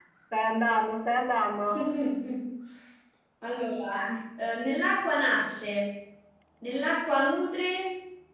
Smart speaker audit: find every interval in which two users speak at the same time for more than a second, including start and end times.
none

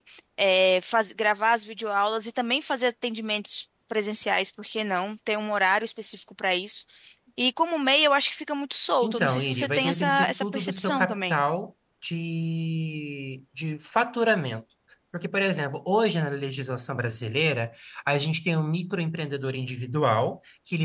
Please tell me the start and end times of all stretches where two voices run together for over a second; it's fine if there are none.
9.0-11.4

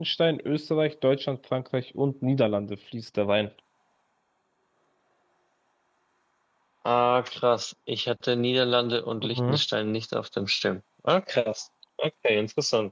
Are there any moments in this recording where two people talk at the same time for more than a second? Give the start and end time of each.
none

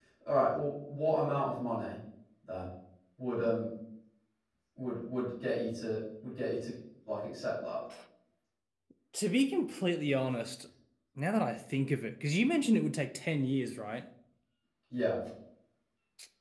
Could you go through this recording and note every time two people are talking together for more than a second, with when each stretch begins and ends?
none

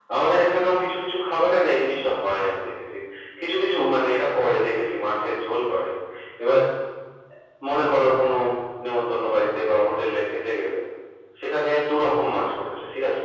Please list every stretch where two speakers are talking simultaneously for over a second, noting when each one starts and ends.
none

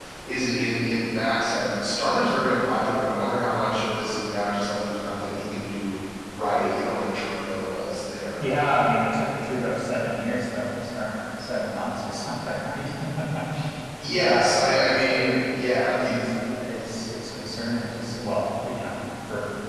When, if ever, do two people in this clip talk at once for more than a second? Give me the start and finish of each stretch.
14.1-15.6

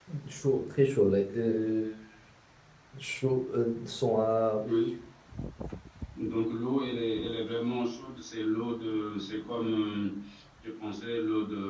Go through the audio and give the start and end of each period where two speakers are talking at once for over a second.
none

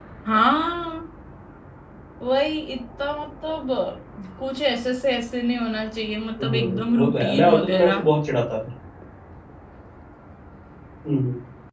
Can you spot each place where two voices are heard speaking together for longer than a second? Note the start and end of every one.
6.4-8.1

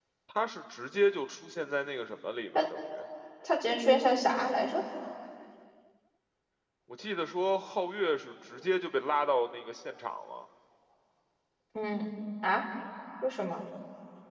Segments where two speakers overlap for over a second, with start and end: none

